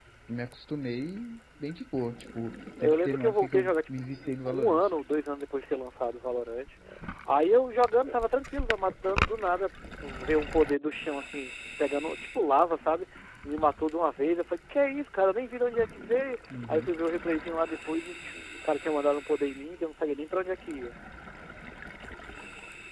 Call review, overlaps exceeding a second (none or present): present